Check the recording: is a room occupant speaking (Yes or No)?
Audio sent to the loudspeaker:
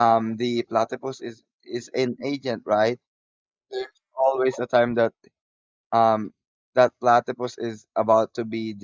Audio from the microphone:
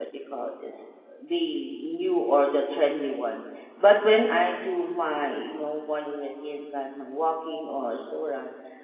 Yes